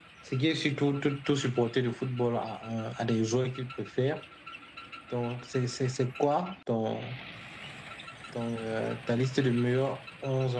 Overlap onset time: none

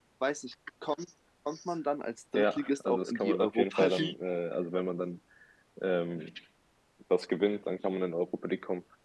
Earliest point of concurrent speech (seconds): 2 s

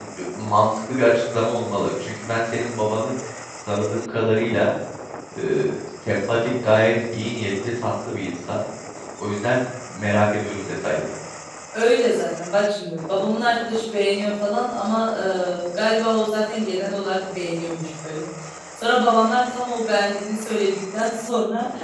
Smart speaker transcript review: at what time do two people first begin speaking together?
none

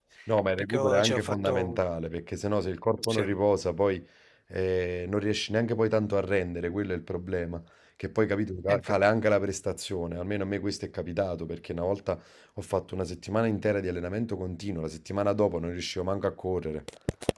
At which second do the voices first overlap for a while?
1 s

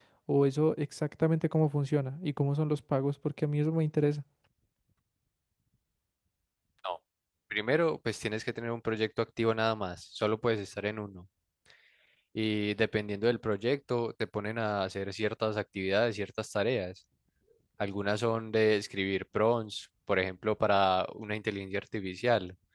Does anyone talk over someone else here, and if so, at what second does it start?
none

